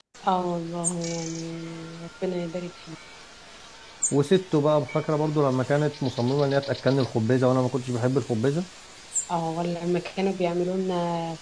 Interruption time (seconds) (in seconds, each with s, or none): none